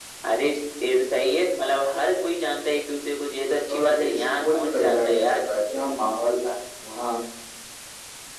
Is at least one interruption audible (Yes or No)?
Yes